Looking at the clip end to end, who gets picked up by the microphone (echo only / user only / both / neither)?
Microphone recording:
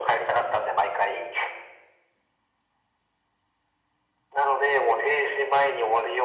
echo only